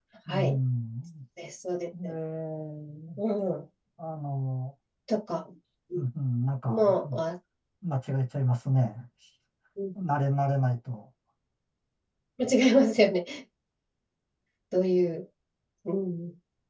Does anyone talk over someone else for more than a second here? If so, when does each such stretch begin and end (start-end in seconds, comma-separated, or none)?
none